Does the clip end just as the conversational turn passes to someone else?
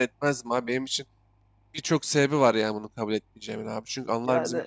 No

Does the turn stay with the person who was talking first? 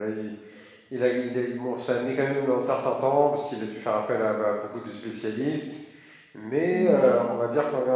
Yes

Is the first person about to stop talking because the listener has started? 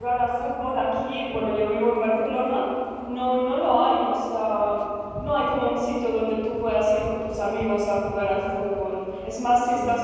No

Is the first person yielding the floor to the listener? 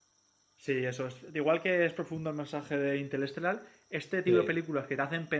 No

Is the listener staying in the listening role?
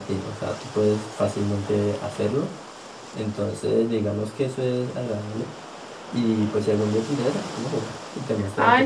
No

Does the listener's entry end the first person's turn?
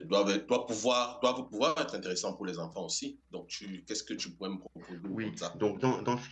Yes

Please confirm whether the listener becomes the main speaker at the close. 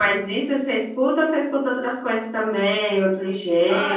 Yes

